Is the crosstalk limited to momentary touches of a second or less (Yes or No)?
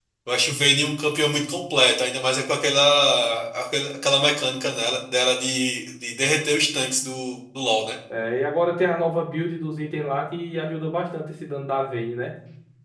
Yes